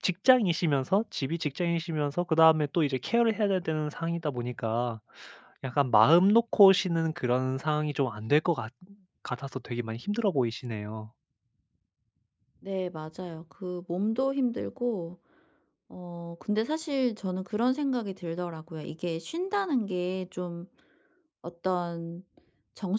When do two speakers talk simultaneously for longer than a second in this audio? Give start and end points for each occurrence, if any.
none

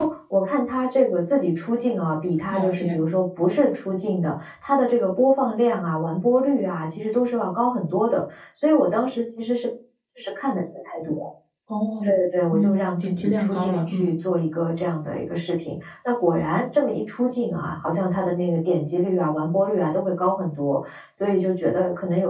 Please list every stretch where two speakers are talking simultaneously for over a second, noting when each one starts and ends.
12.5-14.1

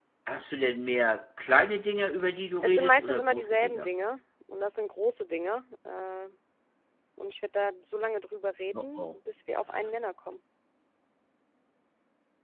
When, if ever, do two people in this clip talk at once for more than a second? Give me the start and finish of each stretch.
2.6-3.9

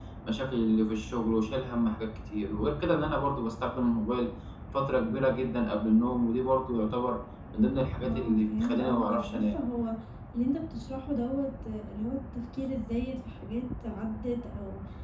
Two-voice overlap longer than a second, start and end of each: 8.1-9.5

